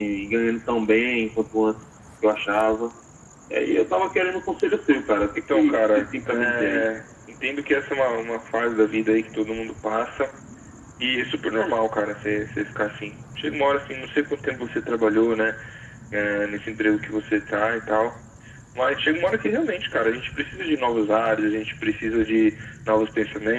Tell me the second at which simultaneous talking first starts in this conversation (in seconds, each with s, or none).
5.5 s